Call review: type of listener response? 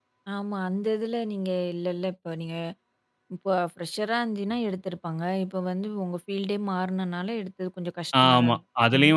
taking over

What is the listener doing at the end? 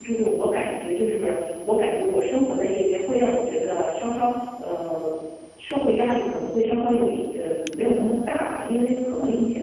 listening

